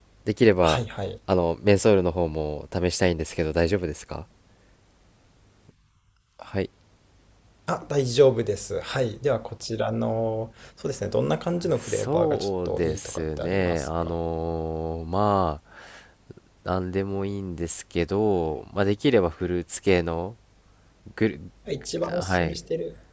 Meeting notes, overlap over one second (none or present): present